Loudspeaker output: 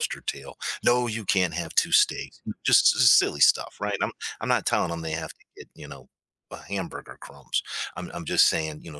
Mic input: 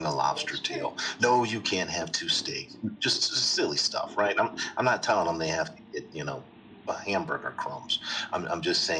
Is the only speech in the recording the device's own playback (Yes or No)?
No